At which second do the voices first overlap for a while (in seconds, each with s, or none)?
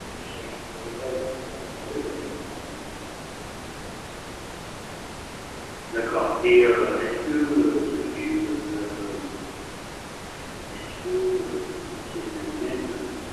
none